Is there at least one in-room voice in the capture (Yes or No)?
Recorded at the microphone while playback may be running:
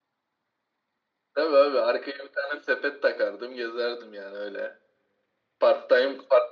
No